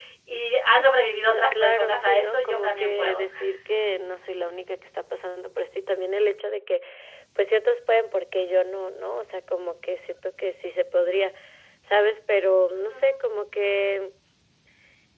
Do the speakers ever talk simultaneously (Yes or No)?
Yes